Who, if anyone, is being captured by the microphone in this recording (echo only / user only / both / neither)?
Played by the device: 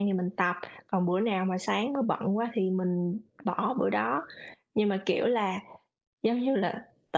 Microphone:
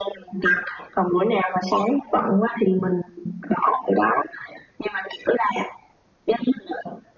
echo only